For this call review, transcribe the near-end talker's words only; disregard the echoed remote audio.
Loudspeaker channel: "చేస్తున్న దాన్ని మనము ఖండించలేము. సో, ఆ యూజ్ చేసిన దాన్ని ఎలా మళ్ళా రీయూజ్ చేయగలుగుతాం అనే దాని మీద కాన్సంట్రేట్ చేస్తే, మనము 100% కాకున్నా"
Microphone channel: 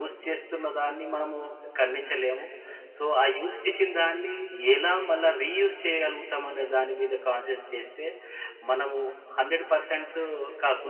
none

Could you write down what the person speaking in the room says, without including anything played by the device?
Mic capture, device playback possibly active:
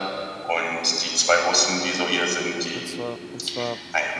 Und zwar und zwar,

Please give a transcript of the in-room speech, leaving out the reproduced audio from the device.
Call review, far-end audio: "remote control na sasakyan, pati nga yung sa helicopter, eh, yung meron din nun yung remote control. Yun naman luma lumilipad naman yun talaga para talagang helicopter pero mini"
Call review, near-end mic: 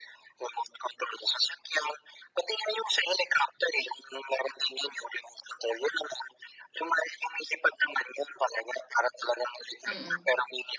Mm,

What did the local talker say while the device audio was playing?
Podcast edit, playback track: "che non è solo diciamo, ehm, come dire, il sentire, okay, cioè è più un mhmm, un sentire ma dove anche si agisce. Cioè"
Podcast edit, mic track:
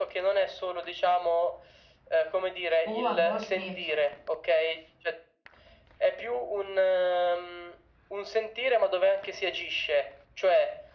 O a volte,

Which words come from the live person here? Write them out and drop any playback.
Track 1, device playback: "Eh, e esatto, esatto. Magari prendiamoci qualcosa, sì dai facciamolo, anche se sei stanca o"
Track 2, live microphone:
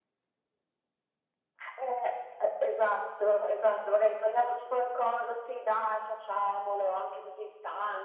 none

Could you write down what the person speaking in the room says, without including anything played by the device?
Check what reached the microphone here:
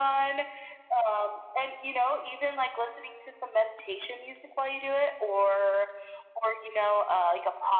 none

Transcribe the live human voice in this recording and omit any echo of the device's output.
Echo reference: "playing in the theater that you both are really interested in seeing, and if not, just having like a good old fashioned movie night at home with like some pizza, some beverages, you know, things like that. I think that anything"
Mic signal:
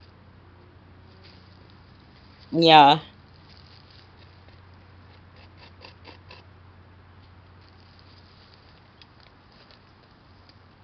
Yeah.

